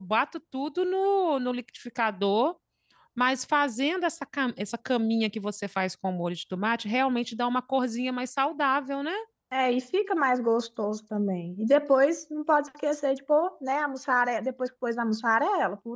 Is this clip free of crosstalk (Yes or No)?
Yes